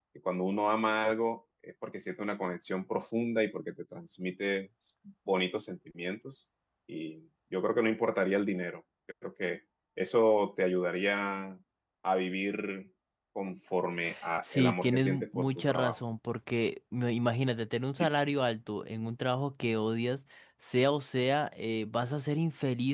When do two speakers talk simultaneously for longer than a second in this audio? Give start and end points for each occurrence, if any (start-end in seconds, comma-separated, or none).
14.5-16.0